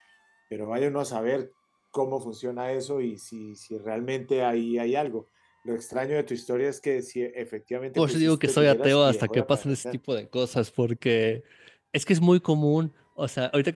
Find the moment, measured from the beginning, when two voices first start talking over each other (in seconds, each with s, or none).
8.0 s